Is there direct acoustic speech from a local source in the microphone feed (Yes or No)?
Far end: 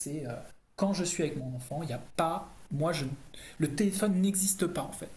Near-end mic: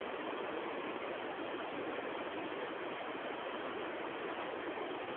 No